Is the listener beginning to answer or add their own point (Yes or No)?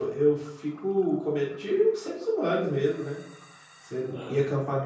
No